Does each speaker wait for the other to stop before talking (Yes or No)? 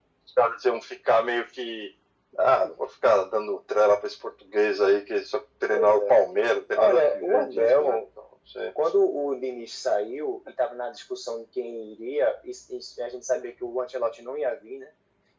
No